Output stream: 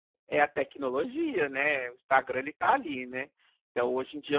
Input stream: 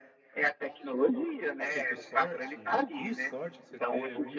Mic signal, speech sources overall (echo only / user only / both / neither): both